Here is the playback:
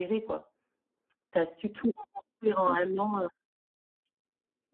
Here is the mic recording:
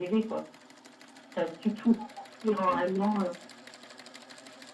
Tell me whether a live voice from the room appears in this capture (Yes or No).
No